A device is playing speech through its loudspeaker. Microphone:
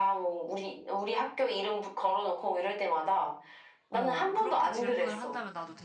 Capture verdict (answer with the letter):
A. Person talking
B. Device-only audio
A